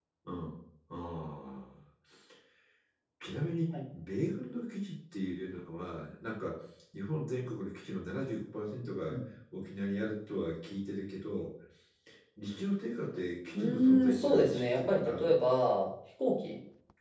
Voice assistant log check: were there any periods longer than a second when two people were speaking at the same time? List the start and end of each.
13.5-15.3

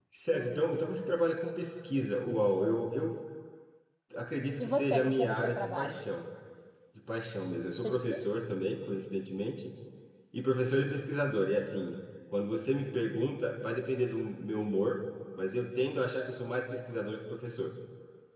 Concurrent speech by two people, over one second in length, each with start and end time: 4.6-6.0

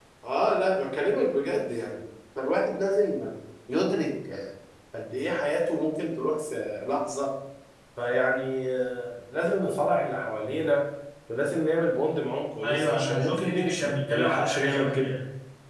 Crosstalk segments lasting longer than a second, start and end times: 12.6-15.1

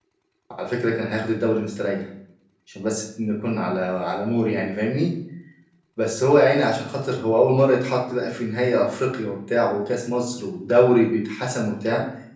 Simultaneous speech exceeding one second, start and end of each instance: none

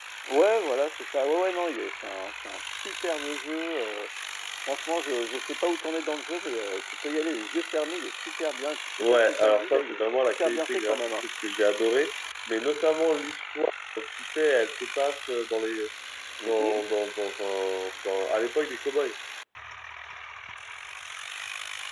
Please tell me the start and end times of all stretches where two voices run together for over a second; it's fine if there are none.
9.0-11.2

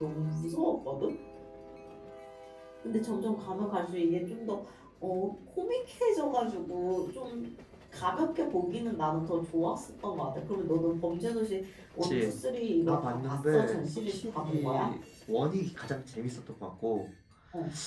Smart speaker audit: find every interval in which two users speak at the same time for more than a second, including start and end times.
12.9-14.9

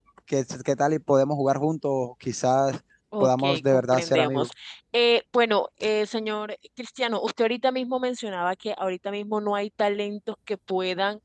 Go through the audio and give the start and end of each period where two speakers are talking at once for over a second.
3.2-4.5

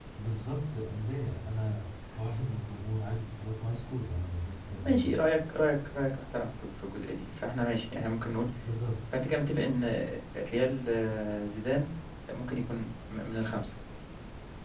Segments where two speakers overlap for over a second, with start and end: none

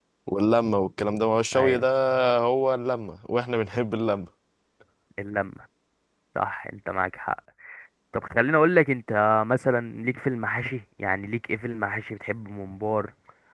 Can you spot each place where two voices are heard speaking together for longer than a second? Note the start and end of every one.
none

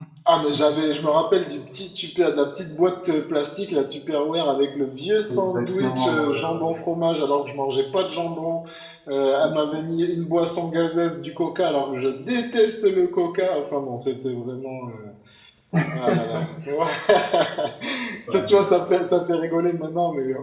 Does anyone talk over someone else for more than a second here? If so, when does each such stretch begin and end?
5.3-6.8

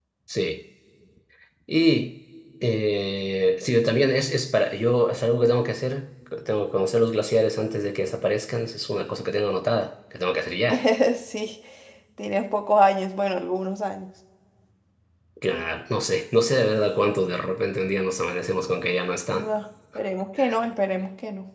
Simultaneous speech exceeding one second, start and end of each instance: none

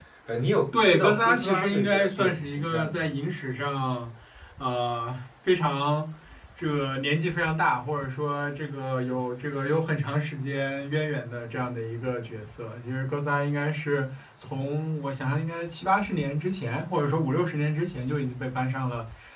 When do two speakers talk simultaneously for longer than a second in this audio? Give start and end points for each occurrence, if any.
0.7-3.1

